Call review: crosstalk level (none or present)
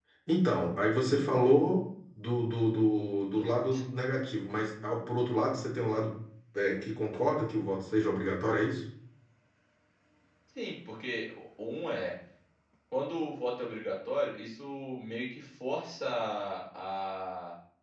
none